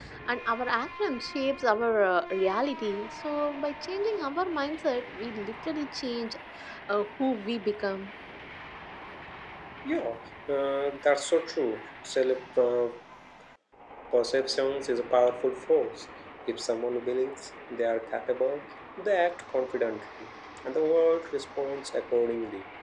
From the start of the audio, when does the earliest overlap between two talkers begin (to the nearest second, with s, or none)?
none